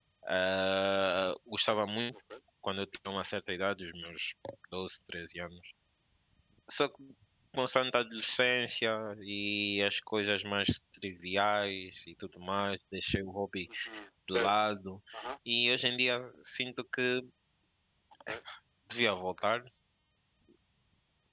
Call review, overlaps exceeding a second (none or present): none